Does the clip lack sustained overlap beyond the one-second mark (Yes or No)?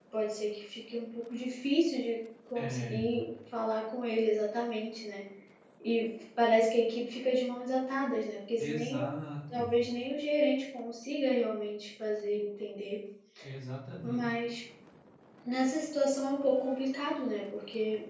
Yes